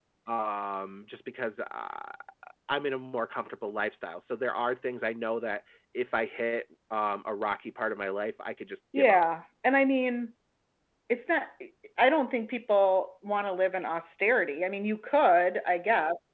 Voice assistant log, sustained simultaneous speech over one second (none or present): none